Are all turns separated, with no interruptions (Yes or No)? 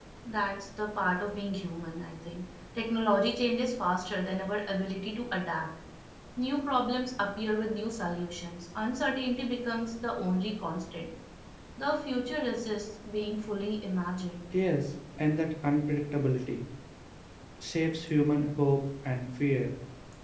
Yes